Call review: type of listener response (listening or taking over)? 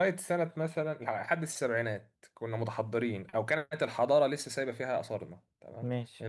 listening